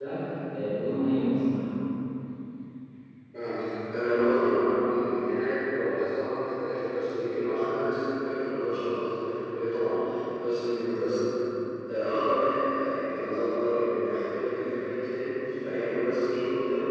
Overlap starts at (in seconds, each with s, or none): none